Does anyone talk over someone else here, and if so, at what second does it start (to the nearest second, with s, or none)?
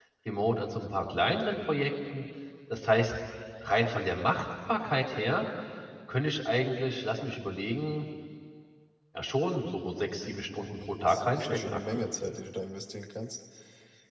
11 s